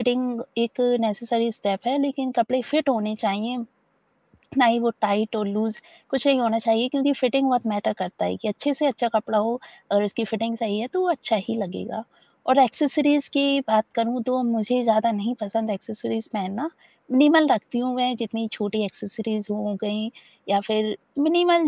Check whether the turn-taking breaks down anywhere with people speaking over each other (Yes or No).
No